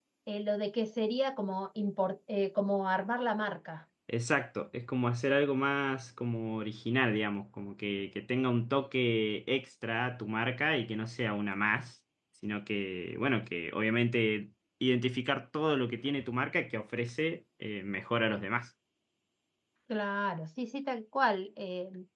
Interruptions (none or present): none